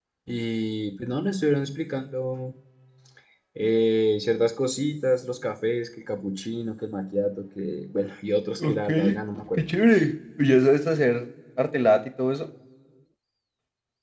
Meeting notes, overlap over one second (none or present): none